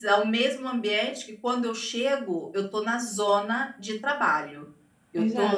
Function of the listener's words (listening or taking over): taking over